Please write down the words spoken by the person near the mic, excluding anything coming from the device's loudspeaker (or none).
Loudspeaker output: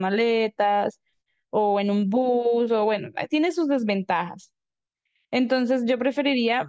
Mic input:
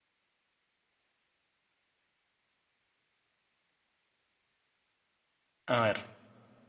A ver,